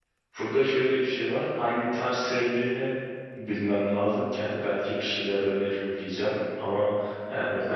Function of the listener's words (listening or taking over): taking over